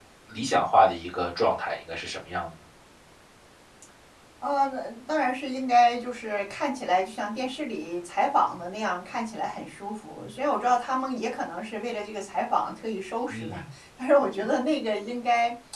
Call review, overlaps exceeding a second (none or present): none